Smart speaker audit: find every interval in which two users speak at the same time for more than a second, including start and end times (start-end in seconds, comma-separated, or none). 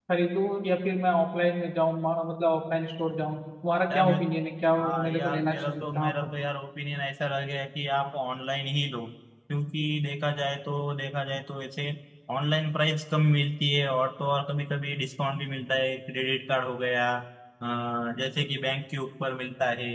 4.8-6.3